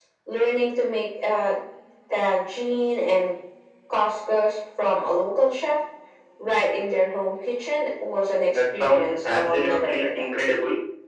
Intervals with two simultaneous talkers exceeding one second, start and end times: 8.5-10.2

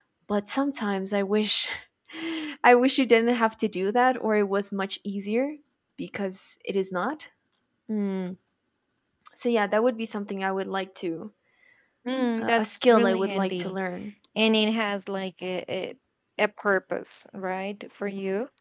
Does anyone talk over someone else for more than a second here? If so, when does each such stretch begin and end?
12.4-13.8

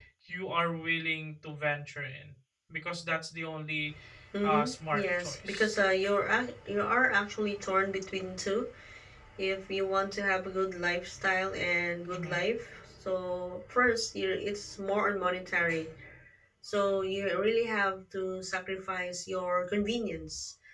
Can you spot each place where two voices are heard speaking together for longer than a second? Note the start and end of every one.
4.4-5.8

